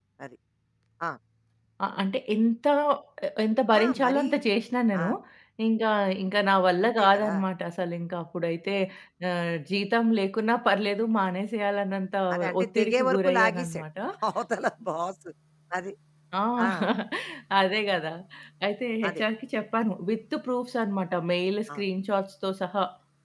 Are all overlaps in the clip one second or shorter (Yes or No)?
No